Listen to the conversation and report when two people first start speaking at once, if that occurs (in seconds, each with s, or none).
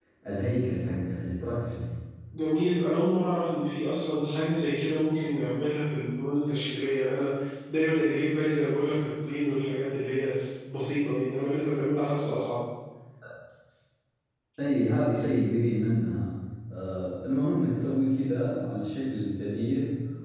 none